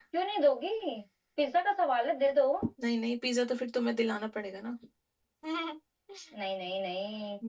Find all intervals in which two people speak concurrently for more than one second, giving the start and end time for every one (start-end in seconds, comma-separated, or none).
none